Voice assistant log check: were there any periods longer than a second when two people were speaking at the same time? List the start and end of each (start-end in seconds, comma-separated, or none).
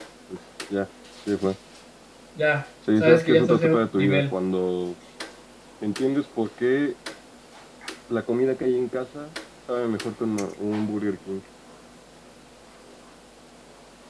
3.0-4.3